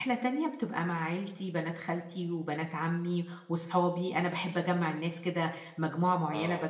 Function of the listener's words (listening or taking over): listening